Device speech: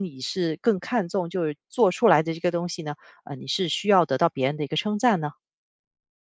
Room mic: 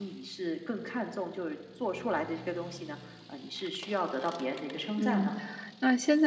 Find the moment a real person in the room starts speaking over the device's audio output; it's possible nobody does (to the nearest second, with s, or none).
5 s